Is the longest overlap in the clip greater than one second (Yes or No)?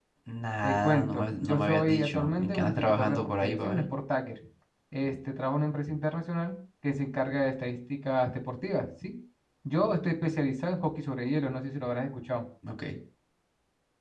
Yes